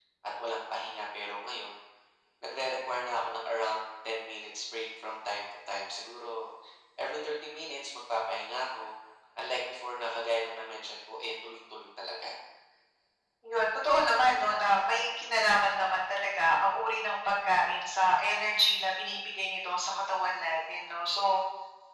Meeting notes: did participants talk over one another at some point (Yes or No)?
No